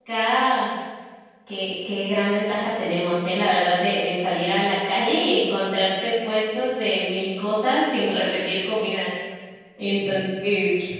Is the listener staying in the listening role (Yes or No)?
Yes